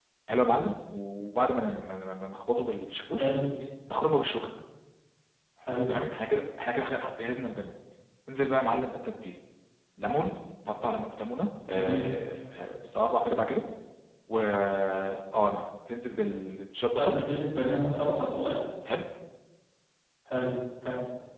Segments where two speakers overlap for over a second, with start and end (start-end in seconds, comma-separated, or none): none